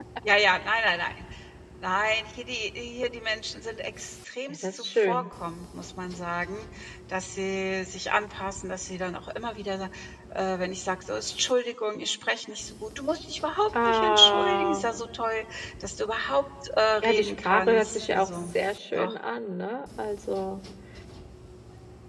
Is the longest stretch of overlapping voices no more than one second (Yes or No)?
No